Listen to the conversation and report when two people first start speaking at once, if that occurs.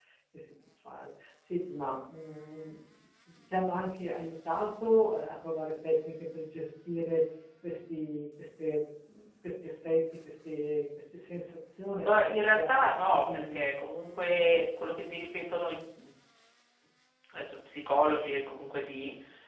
12.0 s

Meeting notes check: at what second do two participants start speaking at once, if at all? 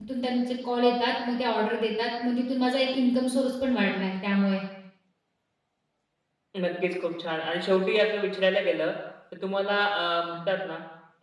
none

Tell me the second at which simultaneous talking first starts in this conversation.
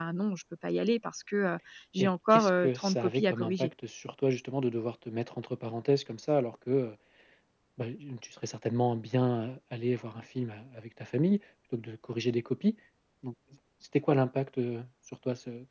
2.0 s

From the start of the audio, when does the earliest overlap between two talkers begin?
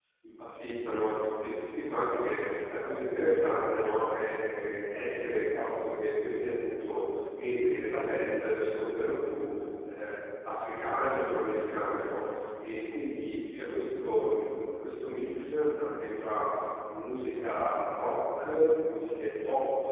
none

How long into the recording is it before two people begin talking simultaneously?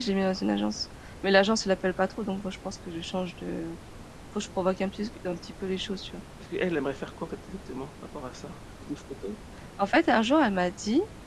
none

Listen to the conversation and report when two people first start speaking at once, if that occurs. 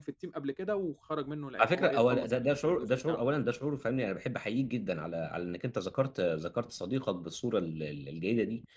1.6 s

